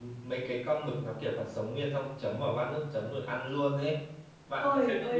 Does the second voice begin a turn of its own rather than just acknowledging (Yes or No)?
Yes